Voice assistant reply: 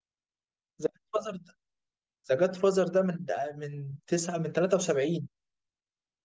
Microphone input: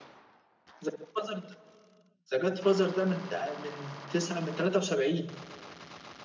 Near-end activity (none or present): none